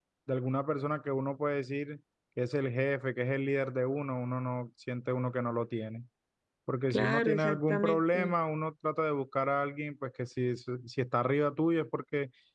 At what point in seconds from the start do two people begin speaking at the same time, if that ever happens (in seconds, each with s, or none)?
6.9 s